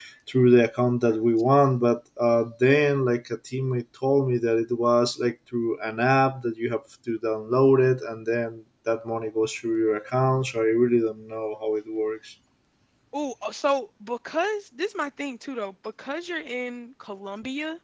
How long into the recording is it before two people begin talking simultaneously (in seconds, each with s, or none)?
none